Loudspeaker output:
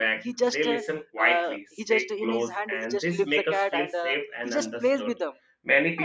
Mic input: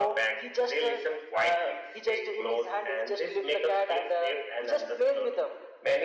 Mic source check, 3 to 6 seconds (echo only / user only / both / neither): echo only